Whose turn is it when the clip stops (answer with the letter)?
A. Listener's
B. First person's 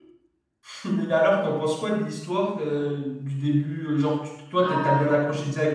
B